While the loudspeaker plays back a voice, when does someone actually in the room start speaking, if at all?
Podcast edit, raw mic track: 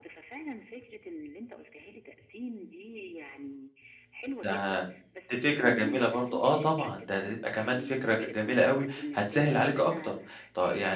4.4 s

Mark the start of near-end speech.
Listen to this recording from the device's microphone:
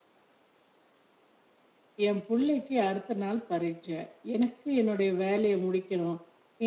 2.1 s

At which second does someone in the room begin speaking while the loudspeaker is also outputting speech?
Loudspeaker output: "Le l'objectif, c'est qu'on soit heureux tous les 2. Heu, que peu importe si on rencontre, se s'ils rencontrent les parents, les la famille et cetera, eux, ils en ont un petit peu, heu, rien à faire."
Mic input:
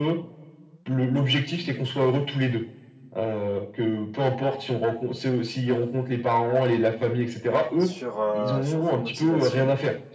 7.8 s

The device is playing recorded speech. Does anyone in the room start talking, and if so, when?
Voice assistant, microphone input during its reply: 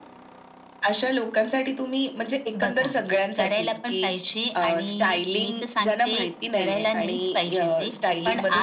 none

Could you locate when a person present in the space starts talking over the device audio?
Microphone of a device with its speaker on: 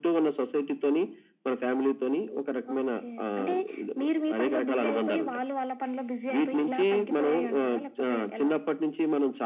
none

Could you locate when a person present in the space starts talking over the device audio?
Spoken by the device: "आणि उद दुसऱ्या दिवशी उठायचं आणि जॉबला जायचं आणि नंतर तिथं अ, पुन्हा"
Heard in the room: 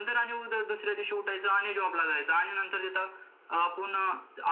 none

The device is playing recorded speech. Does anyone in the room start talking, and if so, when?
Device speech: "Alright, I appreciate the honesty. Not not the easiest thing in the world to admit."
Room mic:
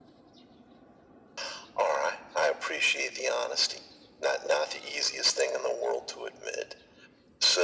none

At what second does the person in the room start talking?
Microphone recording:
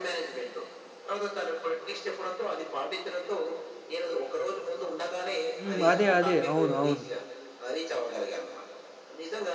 5.6 s

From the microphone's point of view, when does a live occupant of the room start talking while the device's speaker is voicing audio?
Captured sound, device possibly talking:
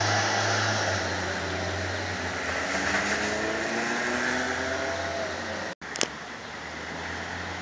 none

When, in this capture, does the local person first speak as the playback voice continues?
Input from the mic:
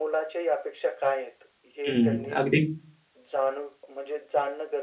1.9 s

